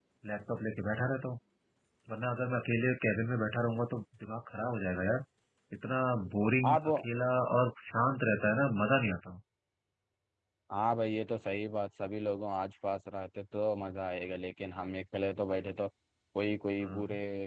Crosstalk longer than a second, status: none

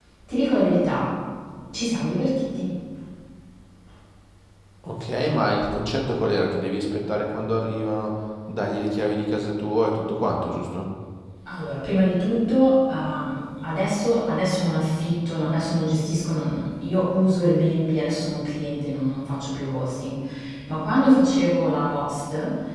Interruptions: none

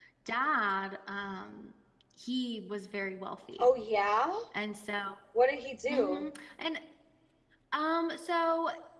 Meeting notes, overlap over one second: none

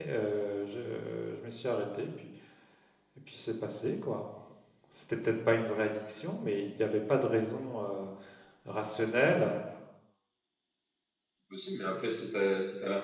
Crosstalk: none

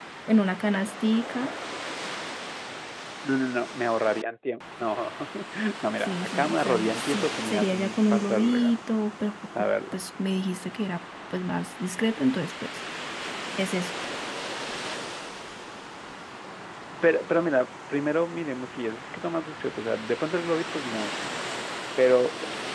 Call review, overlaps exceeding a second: present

